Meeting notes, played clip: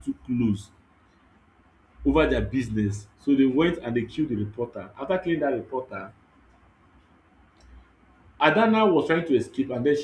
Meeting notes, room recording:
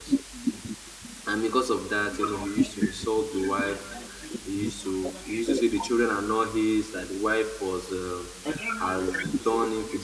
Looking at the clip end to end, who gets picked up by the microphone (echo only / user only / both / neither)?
both